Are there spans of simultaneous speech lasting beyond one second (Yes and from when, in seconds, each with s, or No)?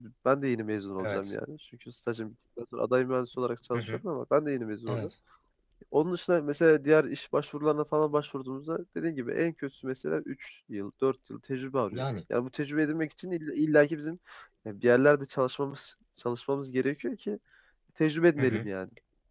No